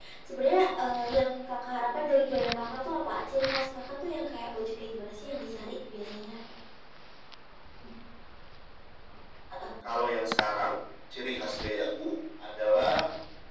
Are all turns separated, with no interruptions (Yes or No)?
Yes